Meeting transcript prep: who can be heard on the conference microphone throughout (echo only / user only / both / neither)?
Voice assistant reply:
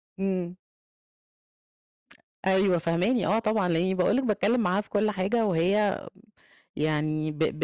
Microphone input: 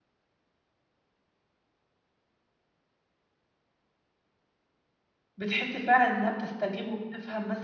user only